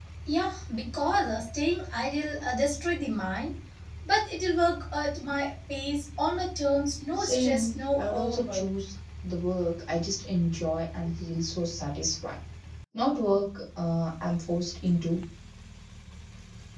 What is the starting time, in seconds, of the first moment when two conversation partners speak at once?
7.1 s

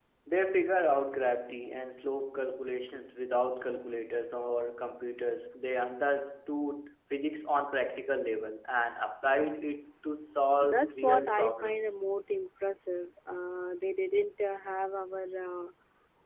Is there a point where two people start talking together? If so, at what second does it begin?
10.6 s

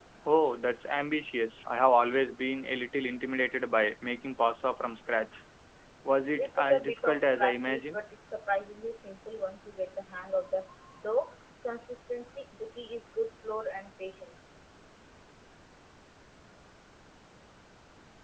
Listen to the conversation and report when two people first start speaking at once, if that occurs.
6.4 s

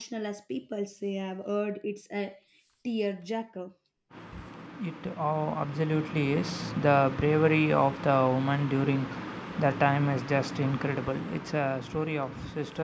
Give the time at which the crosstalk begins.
none

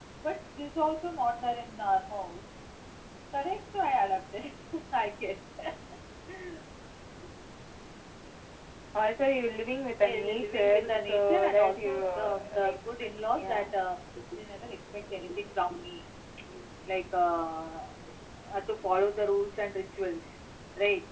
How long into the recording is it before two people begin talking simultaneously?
10.0 s

